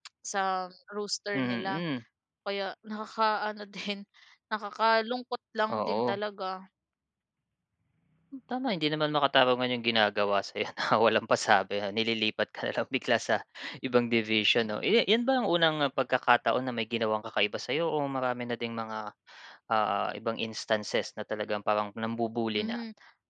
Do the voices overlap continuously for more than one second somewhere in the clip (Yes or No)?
No